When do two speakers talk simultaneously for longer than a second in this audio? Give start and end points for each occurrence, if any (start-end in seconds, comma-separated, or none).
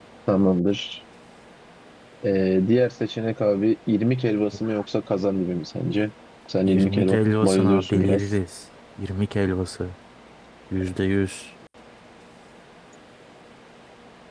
6.7-8.2